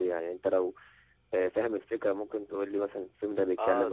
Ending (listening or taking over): taking over